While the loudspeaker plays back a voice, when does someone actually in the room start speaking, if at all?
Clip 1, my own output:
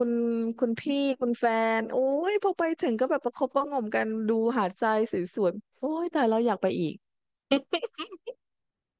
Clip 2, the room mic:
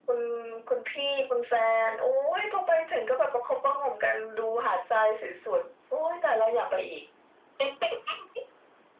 none

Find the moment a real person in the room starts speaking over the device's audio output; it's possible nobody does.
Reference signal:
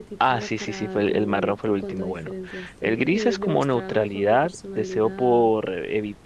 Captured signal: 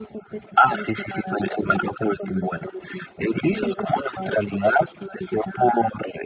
none

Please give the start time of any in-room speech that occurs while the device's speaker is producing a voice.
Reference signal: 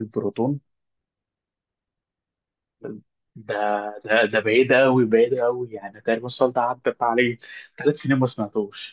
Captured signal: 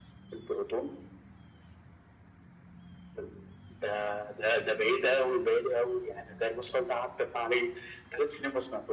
none

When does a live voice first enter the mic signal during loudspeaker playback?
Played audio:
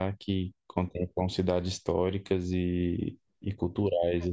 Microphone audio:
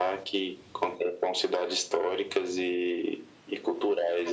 none

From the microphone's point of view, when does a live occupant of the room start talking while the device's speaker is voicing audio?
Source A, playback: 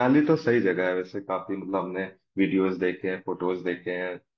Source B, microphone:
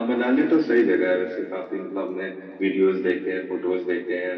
none

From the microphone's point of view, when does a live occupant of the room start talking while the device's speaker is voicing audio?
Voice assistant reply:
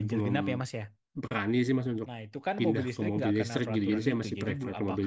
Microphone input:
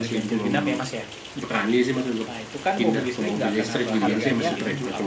4.0 s

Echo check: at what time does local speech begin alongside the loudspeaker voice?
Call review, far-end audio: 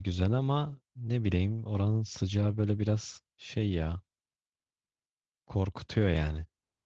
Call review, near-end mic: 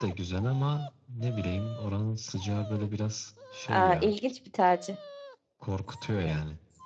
3.7 s

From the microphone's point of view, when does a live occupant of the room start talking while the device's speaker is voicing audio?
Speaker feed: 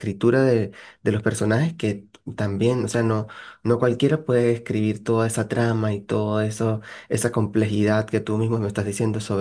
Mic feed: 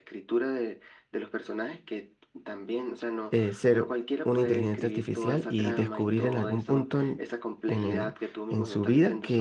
3.3 s

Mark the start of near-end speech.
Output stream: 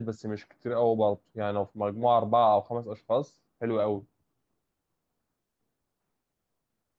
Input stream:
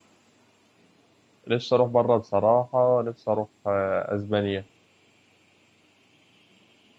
1.5 s

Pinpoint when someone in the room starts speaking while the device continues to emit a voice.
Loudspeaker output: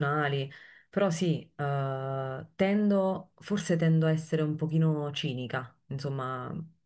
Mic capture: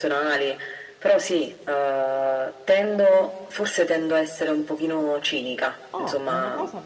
5.9 s

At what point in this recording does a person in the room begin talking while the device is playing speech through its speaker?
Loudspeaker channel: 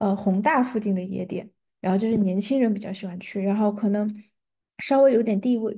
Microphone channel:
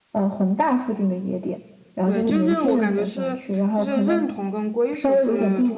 2.0 s

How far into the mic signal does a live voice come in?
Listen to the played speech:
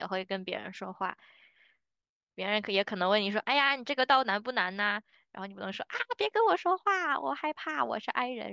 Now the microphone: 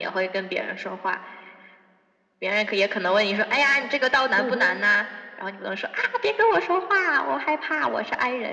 4.3 s

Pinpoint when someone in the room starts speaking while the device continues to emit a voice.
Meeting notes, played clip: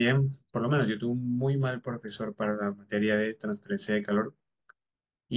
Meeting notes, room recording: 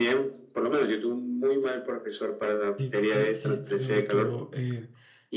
2.8 s

